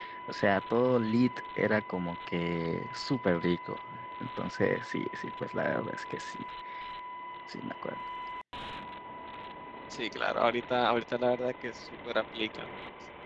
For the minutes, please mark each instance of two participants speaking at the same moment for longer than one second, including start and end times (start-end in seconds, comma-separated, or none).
none